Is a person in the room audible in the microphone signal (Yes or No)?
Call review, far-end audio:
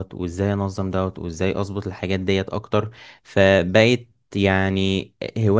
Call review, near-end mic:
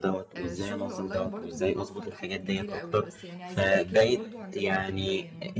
Yes